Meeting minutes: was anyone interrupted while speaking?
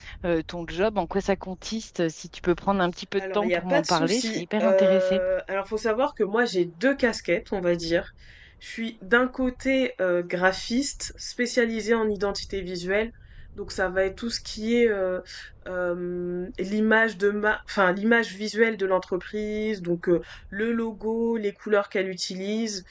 Yes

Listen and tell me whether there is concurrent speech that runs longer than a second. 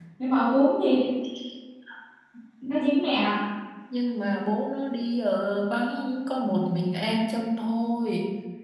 No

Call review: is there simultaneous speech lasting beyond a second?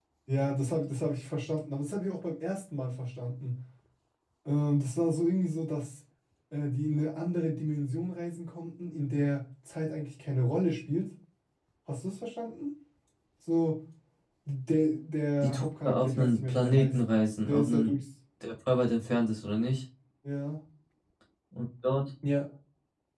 Yes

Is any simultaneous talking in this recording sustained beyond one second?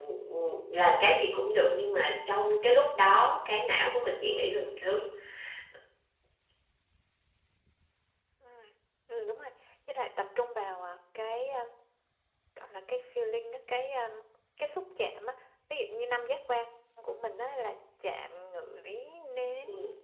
No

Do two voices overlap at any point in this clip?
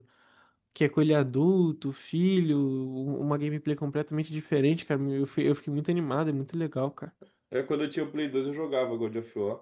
No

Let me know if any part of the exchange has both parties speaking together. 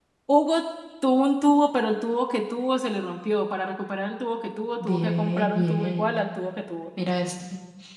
Yes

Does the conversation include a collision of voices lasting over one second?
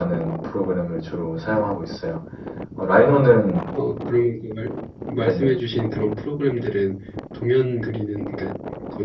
No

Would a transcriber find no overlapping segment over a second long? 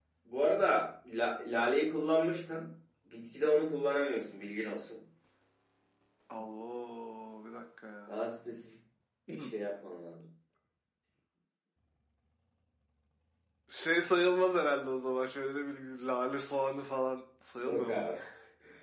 Yes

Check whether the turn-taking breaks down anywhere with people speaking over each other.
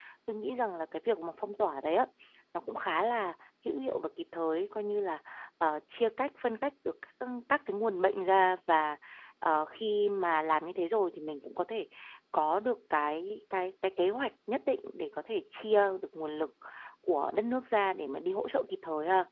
No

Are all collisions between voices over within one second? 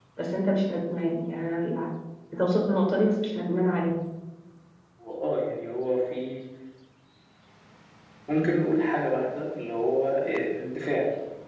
Yes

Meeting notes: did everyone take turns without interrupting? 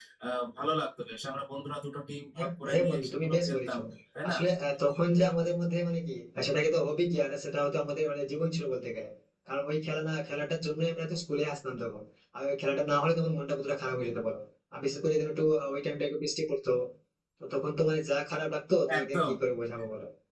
No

